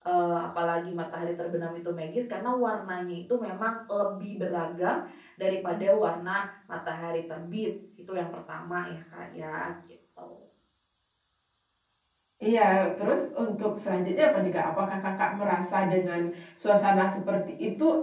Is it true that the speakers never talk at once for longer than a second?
Yes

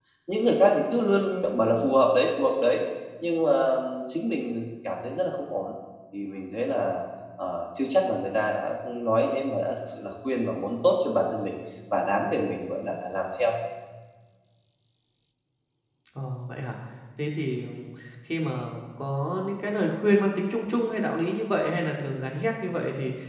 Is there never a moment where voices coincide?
Yes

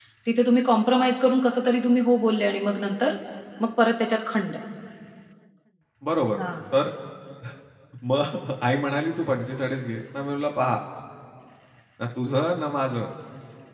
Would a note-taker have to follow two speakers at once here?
No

